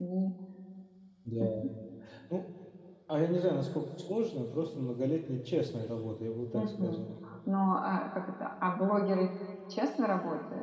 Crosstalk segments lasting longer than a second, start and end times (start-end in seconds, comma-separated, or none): none